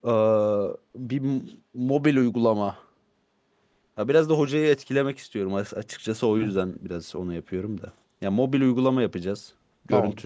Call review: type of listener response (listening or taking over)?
listening